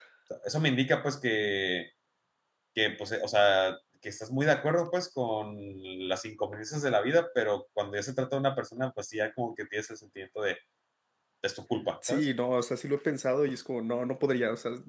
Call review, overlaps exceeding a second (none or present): none